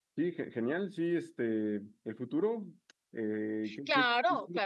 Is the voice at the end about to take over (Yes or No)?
Yes